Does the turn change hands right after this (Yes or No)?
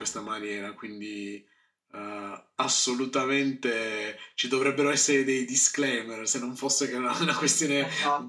Yes